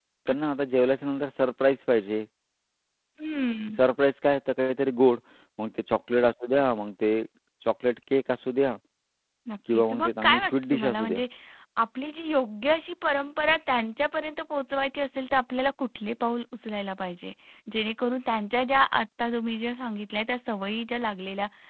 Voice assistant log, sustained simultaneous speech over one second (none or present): present